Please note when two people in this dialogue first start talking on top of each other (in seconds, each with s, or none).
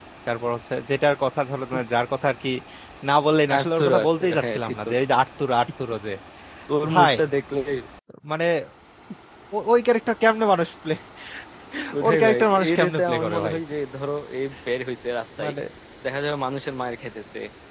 3.6 s